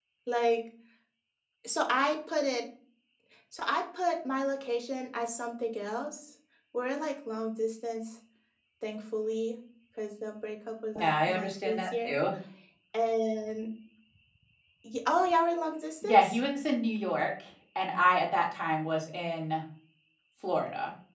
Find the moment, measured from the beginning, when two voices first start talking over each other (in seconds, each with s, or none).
11.0 s